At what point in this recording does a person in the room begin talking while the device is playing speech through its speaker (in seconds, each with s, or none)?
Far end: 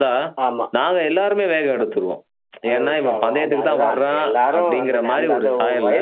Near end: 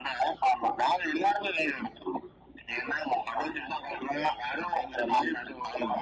none